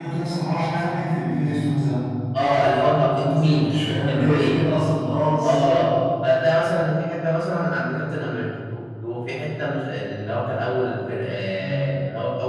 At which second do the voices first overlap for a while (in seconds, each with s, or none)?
2.4 s